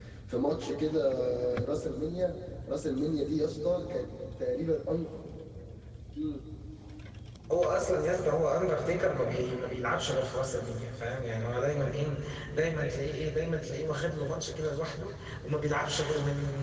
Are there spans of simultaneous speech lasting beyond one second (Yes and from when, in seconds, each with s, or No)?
No